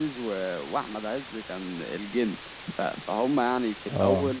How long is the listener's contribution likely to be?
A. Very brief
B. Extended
A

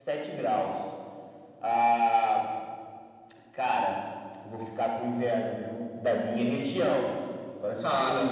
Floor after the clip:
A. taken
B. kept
B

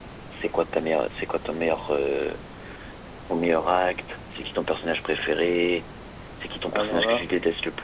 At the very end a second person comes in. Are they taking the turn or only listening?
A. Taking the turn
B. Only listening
B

